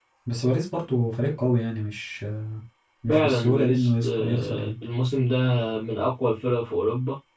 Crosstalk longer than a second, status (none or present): present